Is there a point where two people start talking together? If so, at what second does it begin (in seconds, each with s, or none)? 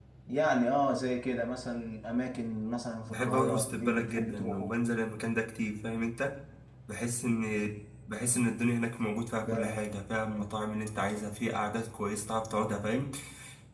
3.1 s